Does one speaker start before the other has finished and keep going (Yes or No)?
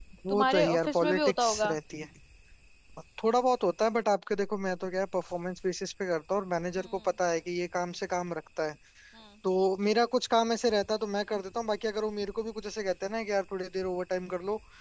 Yes